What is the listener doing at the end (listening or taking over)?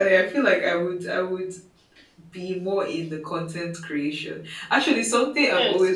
taking over